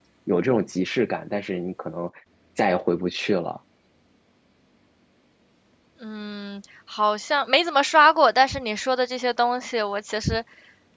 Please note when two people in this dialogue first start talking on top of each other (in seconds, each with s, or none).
none